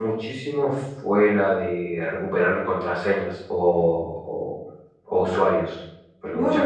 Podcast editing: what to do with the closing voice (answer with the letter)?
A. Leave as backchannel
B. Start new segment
B